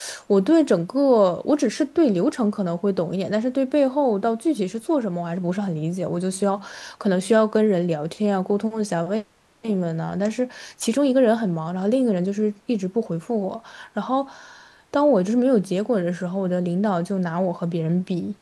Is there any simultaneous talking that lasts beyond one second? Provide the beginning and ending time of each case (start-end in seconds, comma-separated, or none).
none